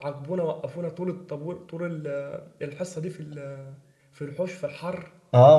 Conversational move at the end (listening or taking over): taking over